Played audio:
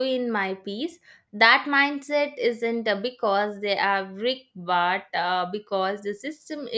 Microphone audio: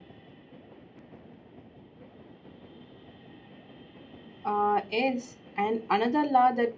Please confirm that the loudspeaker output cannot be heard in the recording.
Yes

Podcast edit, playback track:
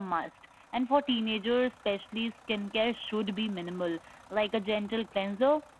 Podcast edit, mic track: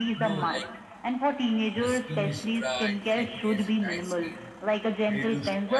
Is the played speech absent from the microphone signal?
No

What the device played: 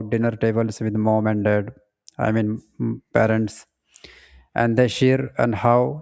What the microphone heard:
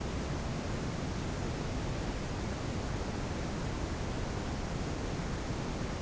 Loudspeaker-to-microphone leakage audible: No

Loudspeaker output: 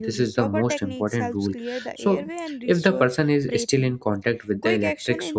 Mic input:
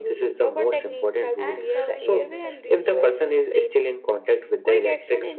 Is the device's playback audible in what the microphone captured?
Yes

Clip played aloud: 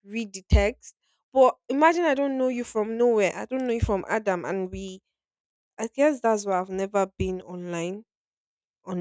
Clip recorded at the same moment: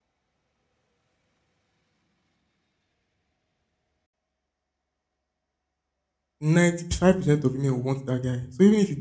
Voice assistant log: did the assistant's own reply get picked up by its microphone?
No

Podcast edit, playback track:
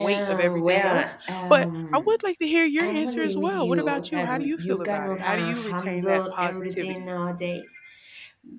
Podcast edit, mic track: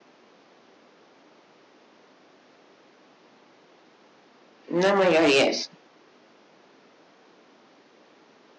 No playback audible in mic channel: Yes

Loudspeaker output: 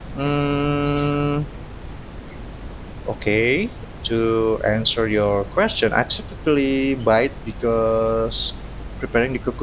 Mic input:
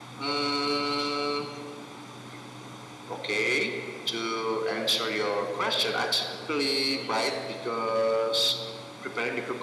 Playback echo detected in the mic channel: Yes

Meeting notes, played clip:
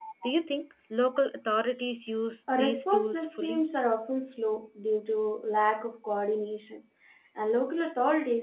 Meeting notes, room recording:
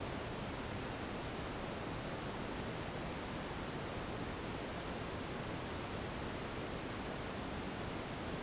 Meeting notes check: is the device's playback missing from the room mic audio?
Yes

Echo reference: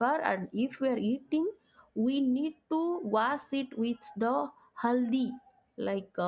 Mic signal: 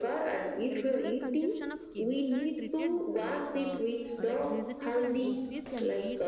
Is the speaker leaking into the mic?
Yes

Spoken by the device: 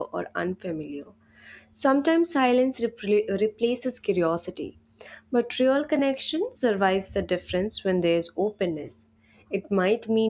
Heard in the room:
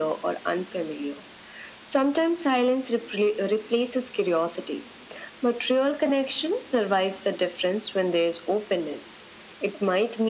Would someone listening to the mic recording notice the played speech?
Yes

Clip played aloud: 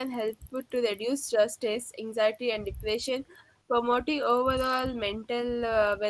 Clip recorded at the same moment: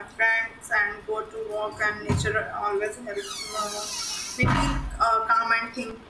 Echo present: No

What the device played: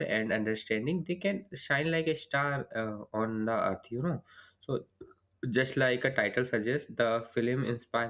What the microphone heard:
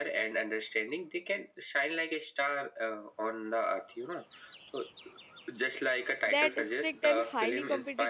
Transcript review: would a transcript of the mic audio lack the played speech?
No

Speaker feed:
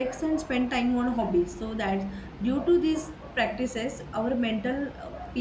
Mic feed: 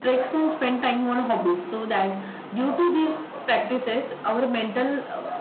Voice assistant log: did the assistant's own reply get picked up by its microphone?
Yes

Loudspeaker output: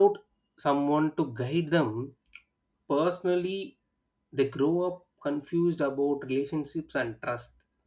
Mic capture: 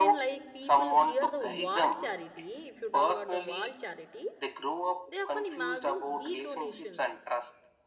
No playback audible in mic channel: No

